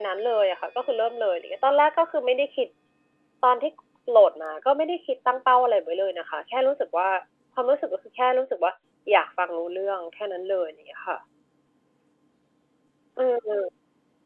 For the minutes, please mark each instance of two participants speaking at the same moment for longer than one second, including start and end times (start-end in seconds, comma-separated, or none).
none